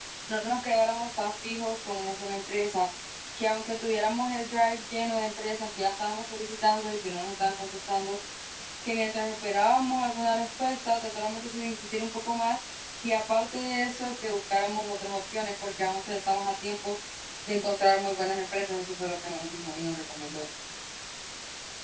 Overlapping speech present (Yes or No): No